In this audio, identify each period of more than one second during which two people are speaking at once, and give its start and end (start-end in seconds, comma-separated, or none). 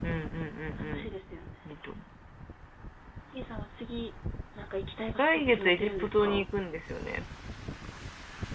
5.2-6.4